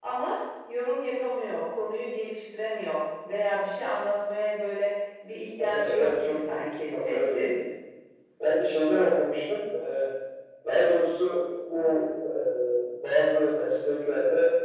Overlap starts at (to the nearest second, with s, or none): 6 s